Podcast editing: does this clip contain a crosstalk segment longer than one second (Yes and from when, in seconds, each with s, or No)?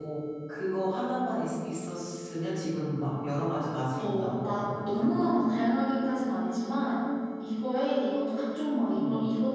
Yes, from 4.0 s